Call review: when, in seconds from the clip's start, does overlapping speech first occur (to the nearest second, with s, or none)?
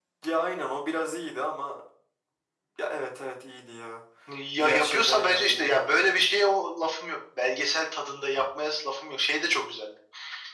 5 s